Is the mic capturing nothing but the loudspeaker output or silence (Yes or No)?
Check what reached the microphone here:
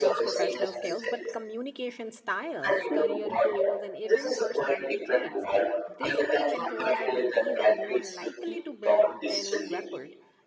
No